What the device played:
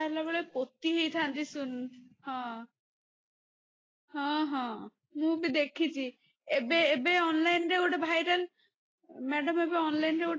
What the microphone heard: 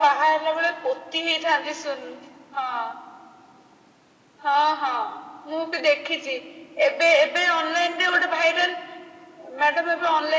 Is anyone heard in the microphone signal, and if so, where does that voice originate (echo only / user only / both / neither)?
echo only